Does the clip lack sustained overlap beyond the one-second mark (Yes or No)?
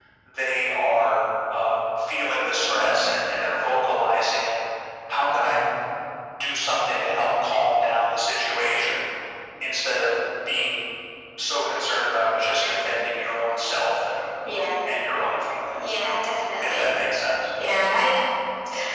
Yes